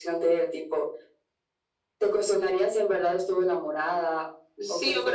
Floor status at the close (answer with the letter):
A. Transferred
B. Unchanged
A